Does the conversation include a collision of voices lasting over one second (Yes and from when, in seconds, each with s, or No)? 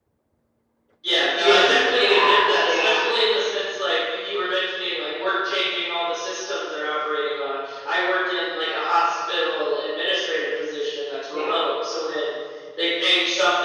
Yes, from 1.2 s